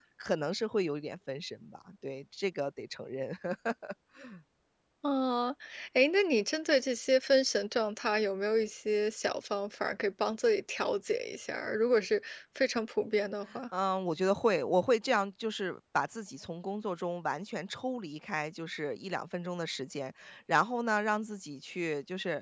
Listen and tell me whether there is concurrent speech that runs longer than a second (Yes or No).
No